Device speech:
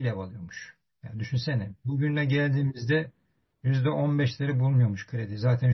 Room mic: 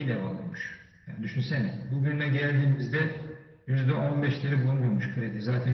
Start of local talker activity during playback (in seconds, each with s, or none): none